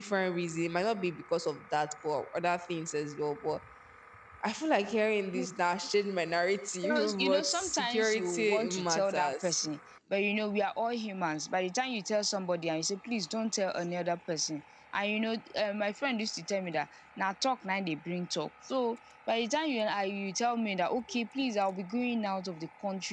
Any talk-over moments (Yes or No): Yes